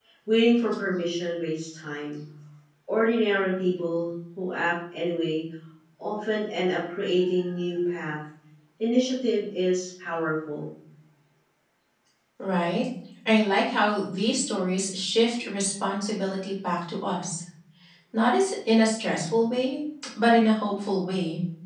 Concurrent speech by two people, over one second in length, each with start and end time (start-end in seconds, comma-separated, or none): none